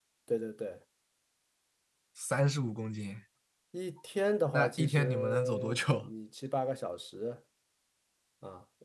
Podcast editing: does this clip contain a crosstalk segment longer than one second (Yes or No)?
Yes